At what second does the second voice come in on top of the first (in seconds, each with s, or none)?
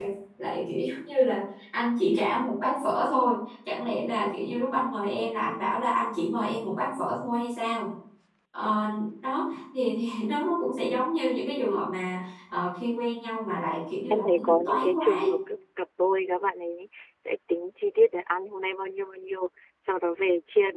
14.1 s